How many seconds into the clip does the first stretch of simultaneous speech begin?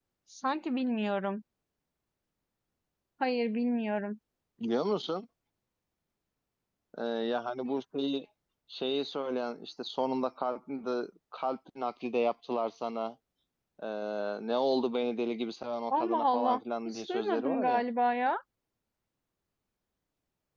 15.9 s

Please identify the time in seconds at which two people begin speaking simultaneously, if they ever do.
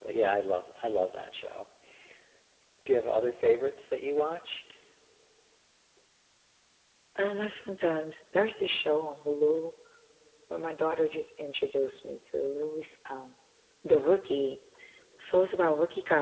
none

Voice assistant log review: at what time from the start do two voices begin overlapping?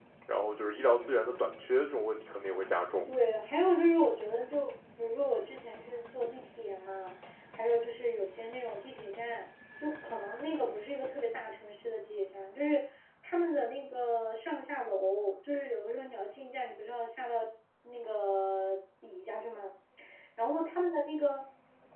none

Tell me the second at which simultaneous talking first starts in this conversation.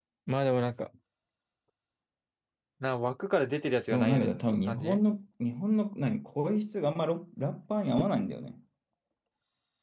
3.7 s

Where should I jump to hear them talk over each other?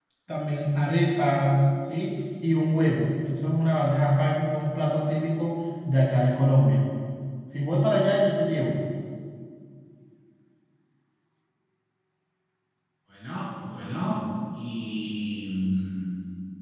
none

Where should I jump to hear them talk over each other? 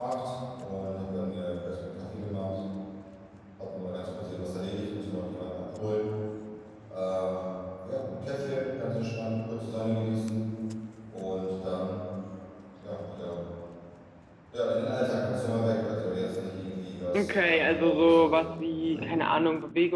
17.1 s

